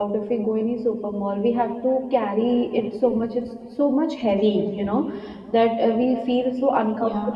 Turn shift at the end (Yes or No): No